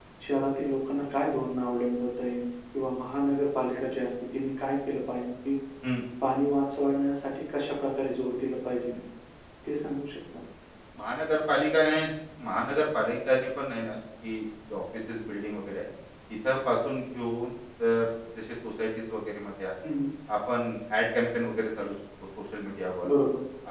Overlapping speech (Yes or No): No